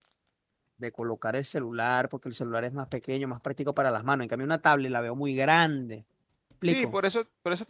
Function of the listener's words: taking over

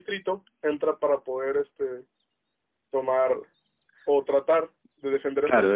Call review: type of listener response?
taking over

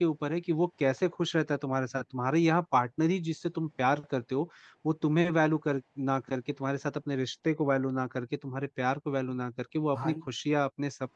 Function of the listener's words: listening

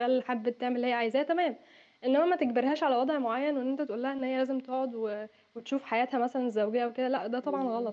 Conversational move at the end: taking over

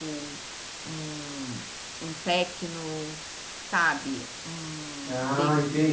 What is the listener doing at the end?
taking over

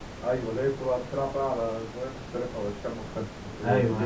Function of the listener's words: taking over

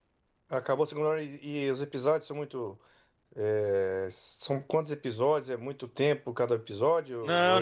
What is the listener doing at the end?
taking over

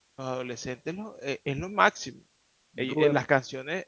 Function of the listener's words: listening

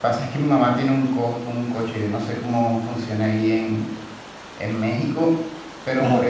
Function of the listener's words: listening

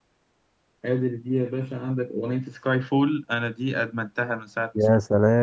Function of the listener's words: taking over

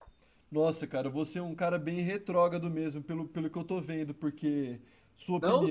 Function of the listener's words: taking over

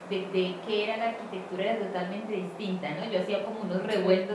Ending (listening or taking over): listening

